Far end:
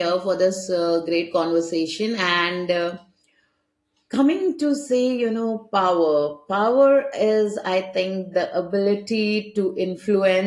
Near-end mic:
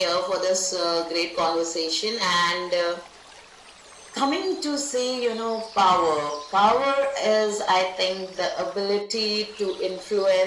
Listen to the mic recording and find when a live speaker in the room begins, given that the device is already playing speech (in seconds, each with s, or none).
none